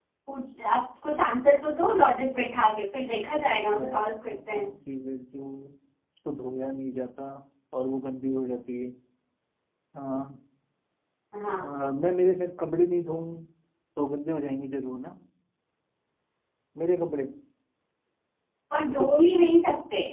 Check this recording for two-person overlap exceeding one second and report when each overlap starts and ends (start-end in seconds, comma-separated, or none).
3.5-4.7